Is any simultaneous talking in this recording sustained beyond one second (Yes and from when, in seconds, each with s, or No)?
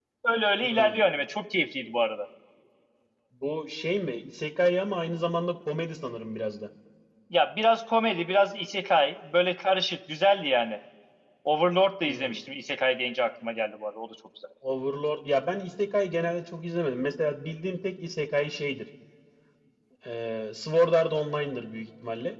No